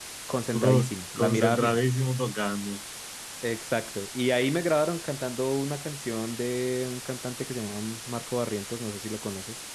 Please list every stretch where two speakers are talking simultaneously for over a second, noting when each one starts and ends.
0.5-1.8

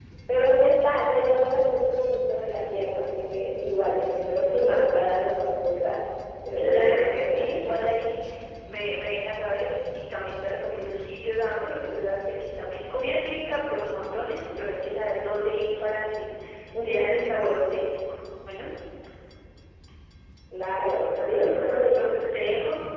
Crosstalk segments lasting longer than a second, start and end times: 6.6-7.9, 20.8-22.1

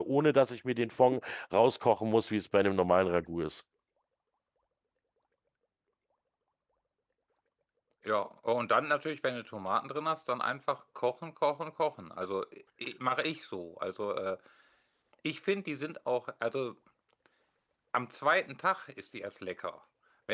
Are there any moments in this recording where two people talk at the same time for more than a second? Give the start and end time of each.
none

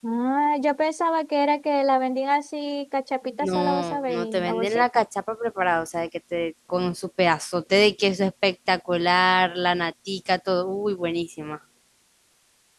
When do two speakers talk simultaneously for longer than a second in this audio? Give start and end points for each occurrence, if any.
3.4-5.0

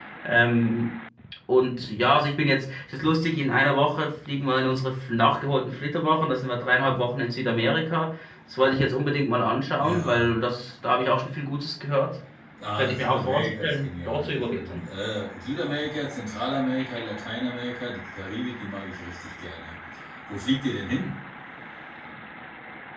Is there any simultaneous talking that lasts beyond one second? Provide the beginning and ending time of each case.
12.8-14.9

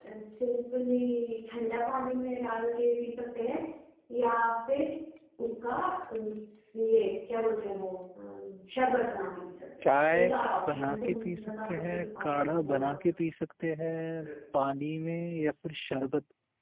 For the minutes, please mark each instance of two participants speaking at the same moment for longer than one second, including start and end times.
10.7-12.9

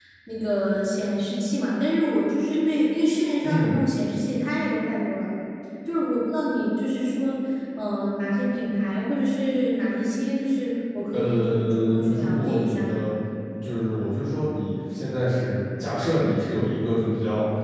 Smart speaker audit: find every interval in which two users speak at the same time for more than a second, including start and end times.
11.1-13.0

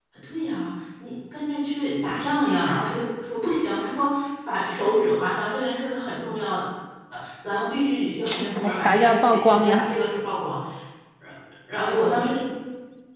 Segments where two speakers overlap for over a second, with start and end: 8.3-9.9

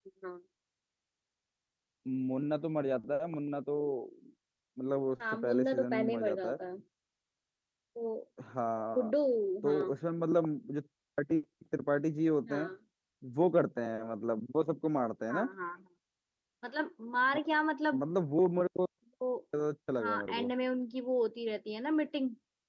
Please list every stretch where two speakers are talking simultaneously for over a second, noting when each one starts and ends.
5.3-6.6

